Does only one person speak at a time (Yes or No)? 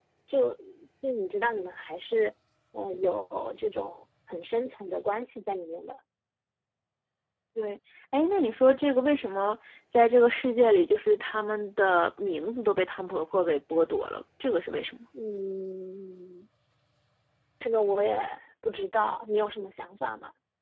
Yes